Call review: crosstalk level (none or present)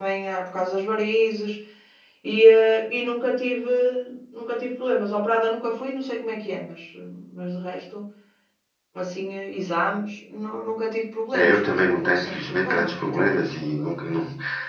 present